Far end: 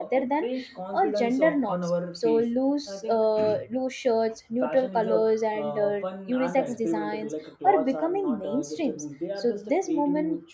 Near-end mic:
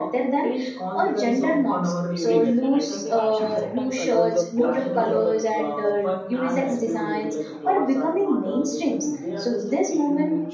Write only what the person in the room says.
everywhere and i think fashion sometimes allows a personal transformation like

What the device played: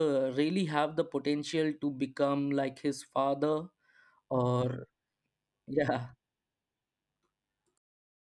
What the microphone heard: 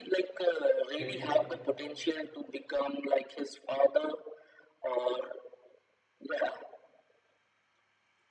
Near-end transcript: get there.

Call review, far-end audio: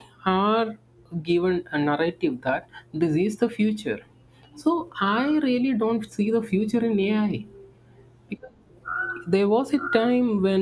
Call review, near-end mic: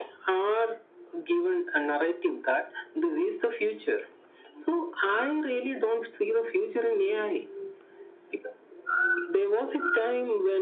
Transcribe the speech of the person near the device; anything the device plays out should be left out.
none

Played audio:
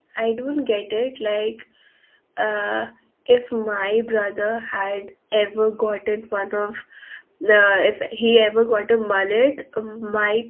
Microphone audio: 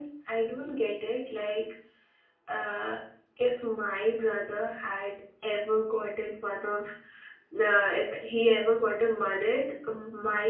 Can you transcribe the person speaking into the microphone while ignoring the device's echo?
none

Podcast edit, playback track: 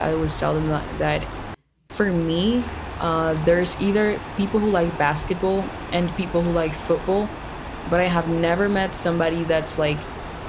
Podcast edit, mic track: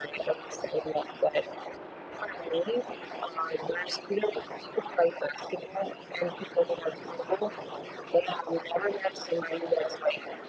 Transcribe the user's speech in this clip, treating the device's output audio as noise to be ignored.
none

